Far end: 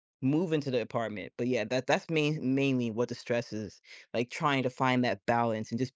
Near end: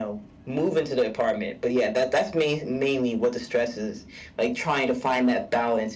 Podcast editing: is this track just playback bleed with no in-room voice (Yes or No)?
Yes